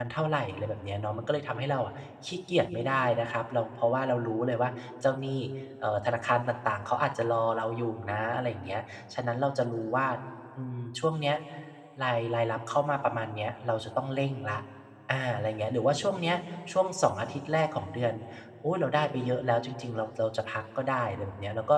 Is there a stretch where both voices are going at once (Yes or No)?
No